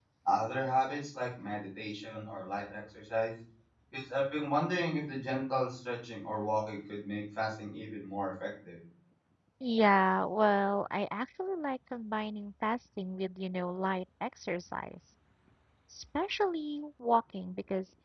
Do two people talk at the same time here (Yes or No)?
No